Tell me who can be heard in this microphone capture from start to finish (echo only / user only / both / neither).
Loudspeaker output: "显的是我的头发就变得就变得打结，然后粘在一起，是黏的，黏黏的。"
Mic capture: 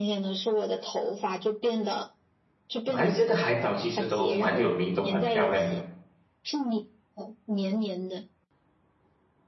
both